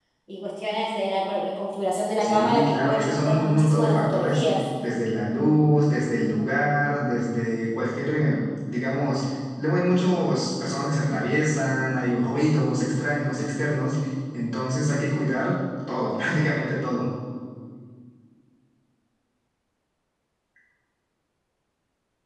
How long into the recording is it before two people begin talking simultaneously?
2.2 s

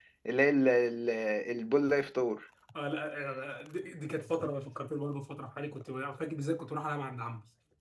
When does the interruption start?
none

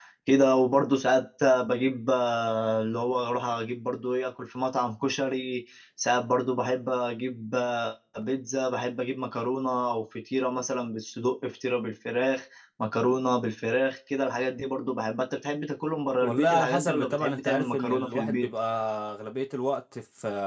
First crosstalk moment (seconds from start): 16.2 s

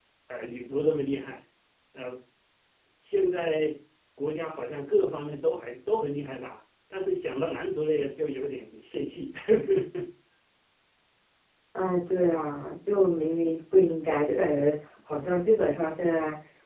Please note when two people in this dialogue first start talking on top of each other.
none

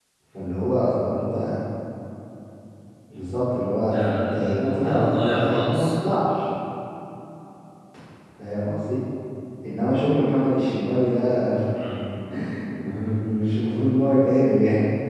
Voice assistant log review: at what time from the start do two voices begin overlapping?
3.9 s

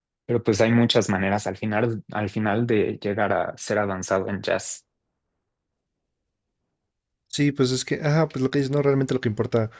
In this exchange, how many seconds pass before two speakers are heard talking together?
none

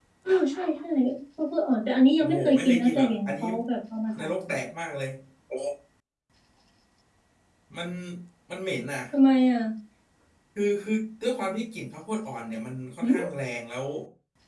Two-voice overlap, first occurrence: 2.2 s

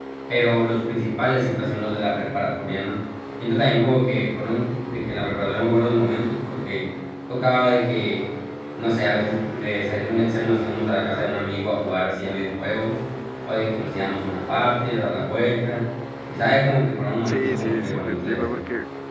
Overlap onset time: 17.2 s

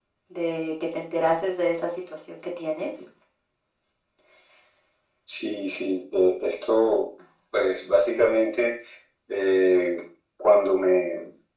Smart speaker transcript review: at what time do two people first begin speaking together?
none

